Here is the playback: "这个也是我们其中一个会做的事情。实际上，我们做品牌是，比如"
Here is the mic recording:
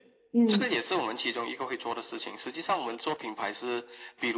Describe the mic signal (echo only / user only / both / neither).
both